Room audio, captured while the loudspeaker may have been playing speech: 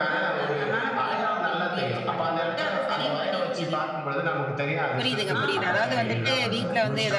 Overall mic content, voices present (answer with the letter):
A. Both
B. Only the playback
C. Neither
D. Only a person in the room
A